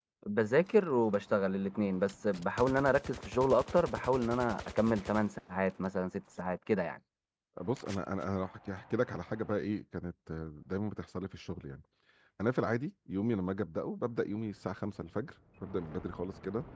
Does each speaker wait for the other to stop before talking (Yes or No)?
Yes